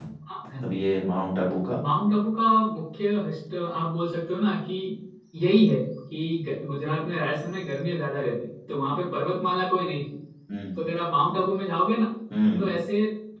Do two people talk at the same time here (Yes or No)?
No